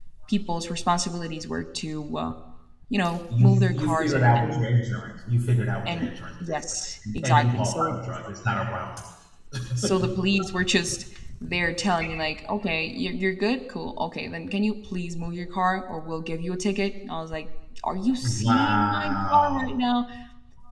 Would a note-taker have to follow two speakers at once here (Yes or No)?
Yes